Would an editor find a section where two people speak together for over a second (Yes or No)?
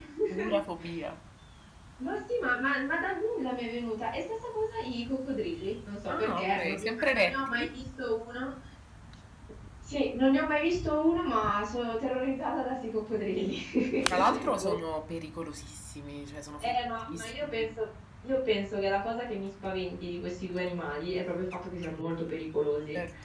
Yes